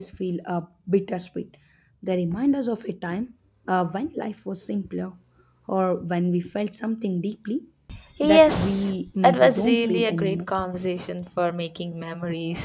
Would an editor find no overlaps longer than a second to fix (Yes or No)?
No